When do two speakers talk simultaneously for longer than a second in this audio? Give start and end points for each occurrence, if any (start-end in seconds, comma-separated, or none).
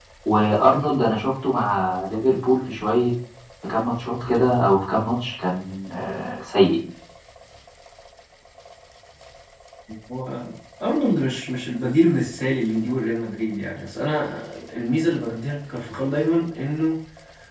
none